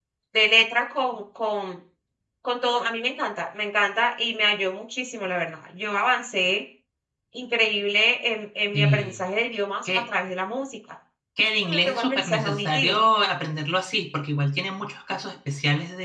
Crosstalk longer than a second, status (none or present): present